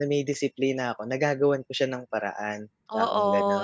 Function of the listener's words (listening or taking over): taking over